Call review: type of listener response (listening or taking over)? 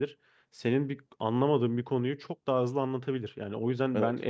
listening